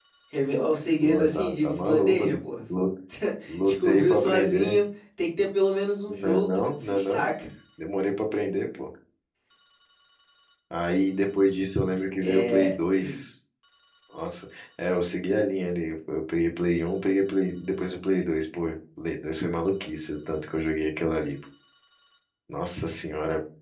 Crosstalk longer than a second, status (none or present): present